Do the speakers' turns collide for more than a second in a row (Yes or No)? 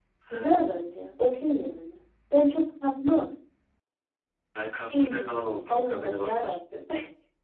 Yes